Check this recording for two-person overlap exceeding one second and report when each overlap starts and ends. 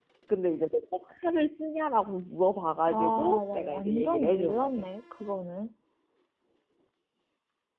2.9-4.9

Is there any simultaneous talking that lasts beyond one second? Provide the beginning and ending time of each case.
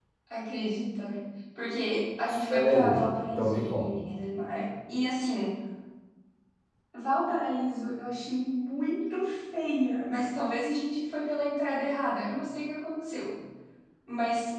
2.5-3.9

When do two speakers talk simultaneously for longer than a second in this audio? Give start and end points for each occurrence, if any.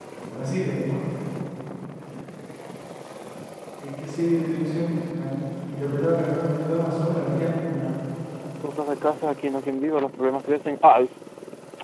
none

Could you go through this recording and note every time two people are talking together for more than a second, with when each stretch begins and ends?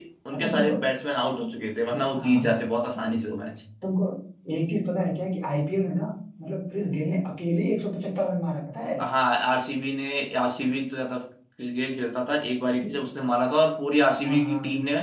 none

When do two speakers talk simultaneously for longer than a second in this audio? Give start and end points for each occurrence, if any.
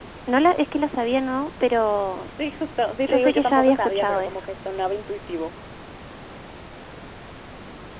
3.1-4.4

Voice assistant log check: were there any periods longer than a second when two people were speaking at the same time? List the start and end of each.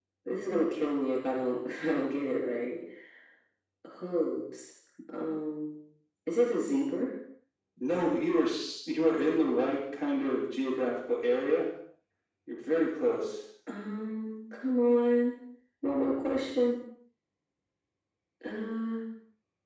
none

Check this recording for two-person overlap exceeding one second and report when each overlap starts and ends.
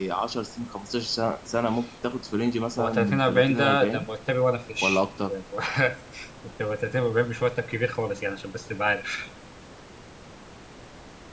2.8-4.0

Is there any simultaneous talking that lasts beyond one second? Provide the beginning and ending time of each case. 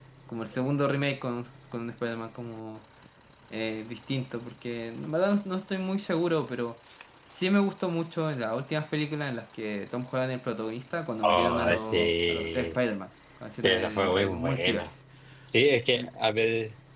11.2-12.8, 13.5-14.9

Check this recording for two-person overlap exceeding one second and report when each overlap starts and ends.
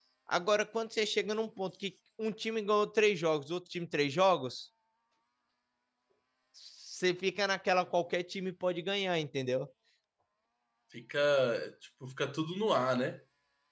none

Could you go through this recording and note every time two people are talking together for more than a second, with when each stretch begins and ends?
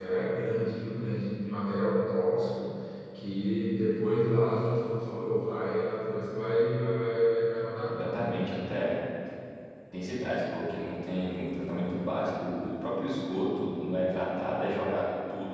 none

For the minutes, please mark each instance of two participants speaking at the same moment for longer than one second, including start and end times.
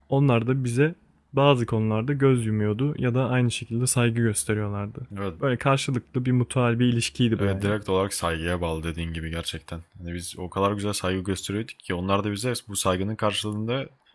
none

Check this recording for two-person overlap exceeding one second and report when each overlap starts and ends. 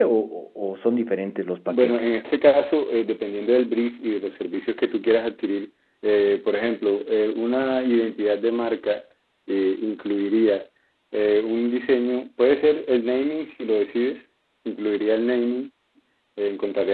none

